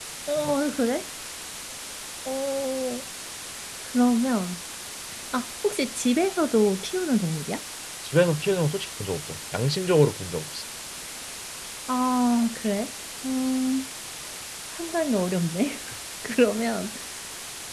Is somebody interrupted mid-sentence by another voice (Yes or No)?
No